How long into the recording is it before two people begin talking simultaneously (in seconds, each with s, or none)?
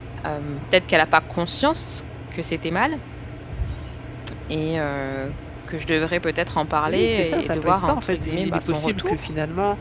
6.9 s